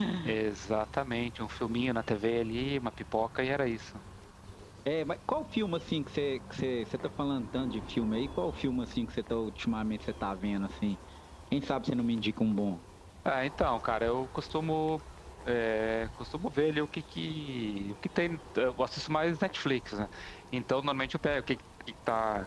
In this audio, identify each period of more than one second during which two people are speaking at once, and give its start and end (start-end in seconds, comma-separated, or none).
none